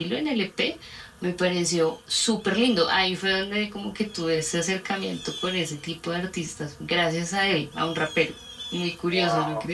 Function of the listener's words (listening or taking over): taking over